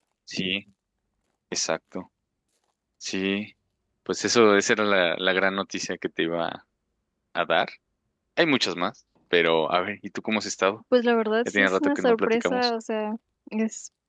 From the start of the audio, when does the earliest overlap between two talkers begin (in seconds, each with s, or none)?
11.4 s